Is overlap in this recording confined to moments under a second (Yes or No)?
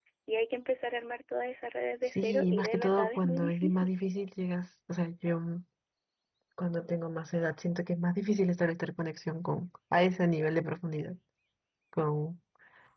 No